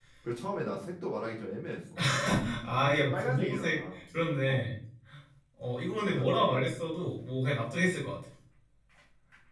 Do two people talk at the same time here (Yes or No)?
Yes